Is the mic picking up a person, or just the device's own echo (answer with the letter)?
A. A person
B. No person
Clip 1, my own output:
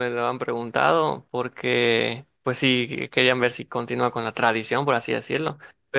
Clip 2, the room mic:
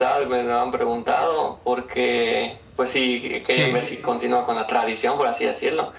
A